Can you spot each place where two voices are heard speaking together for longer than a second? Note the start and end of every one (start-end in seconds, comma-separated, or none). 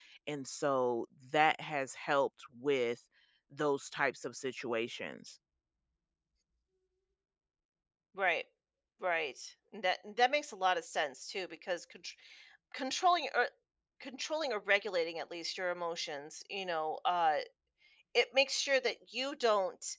none